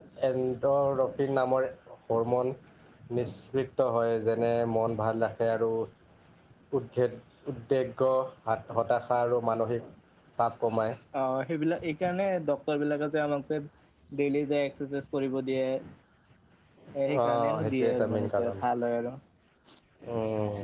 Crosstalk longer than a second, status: present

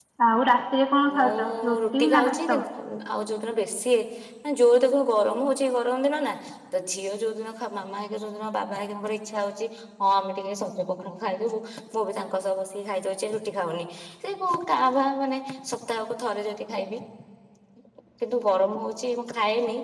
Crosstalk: present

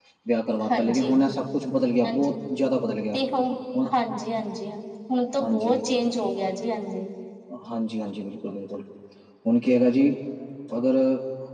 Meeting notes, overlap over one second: none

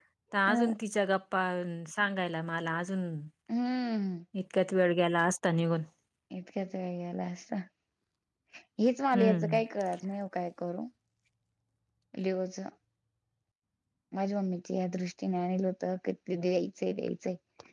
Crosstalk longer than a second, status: none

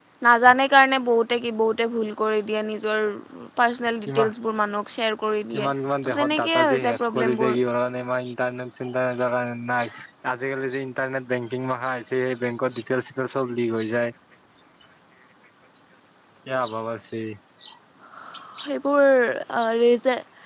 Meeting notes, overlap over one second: present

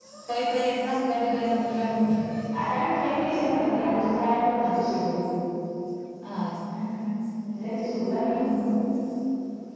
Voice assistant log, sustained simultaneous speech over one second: none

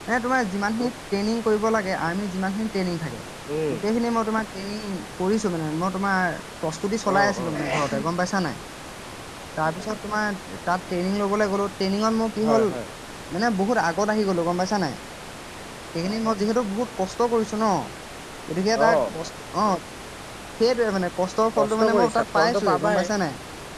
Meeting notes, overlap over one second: present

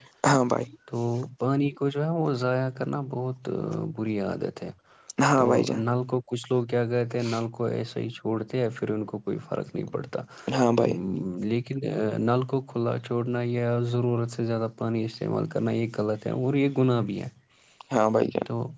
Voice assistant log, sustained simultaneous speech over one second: none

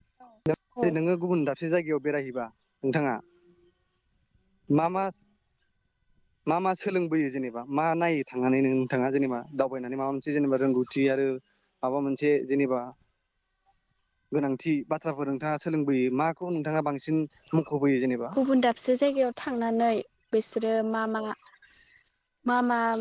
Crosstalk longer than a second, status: none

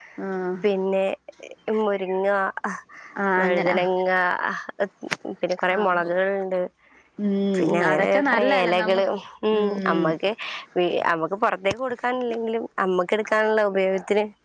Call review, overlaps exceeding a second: present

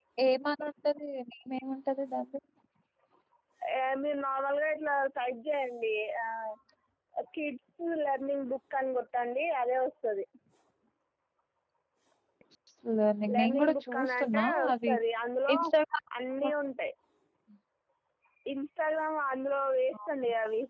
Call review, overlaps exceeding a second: present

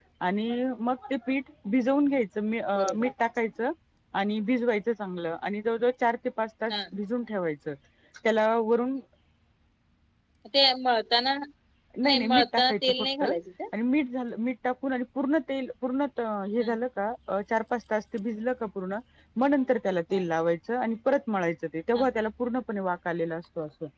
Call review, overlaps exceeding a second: present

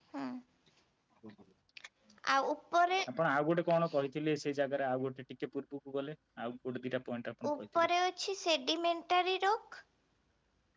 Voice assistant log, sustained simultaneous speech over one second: none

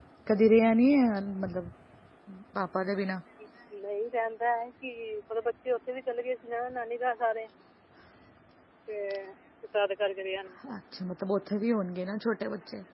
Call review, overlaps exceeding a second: none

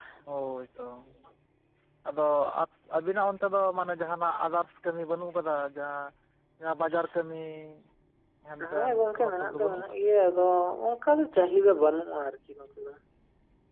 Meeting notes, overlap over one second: present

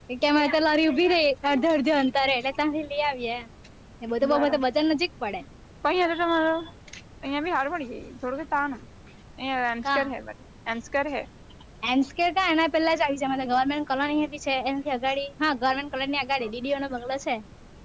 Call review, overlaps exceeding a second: none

